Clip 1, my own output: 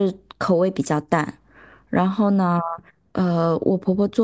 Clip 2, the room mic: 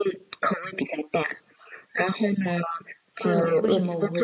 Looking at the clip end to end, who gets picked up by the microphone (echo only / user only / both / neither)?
both